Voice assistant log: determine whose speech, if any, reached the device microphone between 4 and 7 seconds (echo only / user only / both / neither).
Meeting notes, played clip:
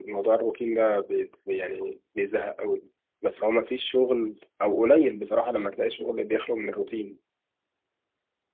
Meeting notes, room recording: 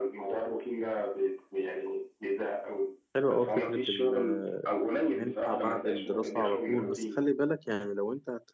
both